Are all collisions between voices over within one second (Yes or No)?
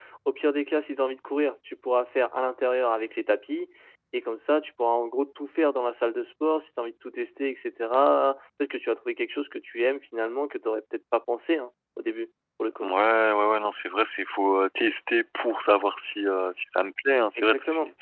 Yes